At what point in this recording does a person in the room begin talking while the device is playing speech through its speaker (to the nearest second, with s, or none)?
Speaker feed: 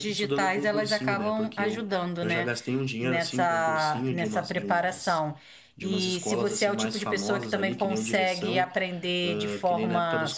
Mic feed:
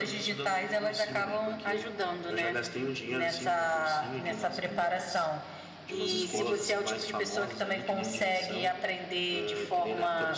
6 s